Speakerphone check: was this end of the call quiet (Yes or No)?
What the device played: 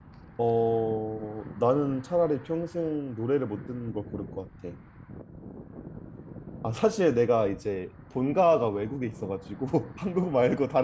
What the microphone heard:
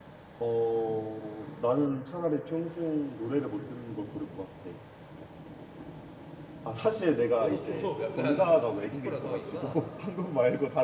No